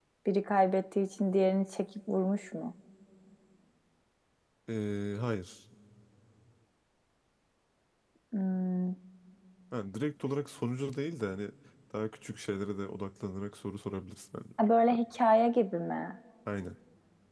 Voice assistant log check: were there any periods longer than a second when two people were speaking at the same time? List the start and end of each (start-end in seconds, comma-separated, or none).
none